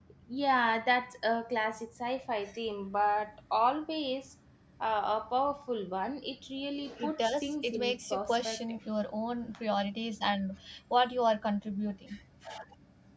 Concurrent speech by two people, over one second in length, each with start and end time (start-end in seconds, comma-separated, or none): 7.0-8.6